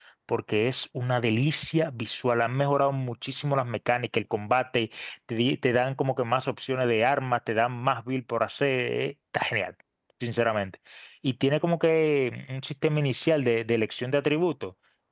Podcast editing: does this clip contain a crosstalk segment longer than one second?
No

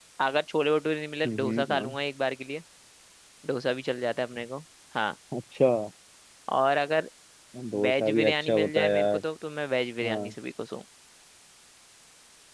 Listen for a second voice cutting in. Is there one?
Yes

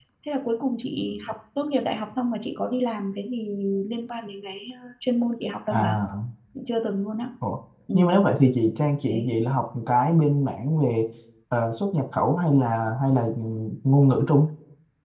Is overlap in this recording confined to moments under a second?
Yes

